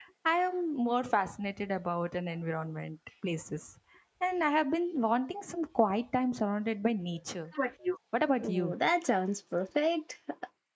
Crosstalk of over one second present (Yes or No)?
No